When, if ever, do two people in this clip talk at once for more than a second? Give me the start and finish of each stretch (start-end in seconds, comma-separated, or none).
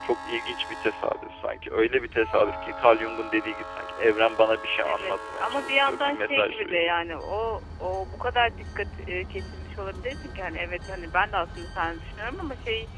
4.8-6.9